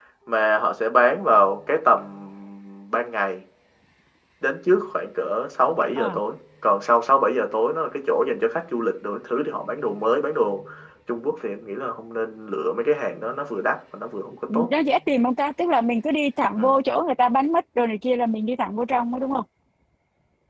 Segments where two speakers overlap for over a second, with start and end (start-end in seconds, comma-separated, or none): none